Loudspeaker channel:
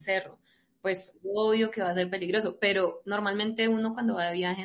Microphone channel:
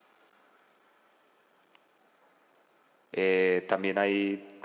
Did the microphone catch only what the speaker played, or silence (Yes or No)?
No